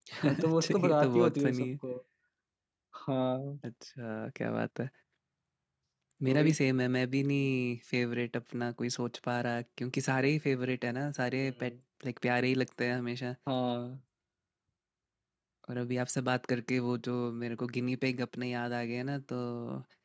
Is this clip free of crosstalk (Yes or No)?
No